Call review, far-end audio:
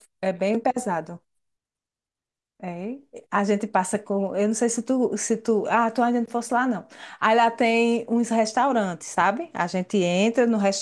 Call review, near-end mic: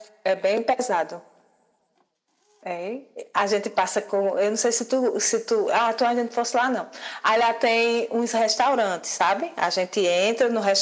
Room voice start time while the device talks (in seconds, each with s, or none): none